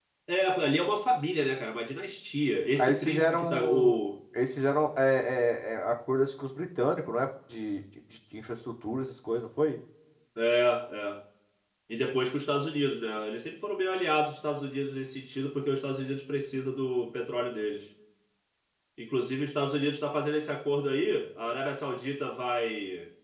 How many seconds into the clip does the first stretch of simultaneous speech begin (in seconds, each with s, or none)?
2.8 s